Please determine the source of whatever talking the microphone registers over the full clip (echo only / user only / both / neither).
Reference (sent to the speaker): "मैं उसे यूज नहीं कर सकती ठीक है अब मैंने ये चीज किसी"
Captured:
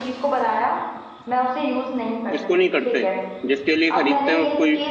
both